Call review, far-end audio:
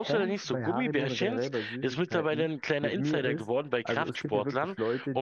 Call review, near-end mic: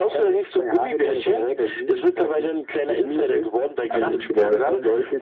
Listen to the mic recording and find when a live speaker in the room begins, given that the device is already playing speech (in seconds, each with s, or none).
3.8 s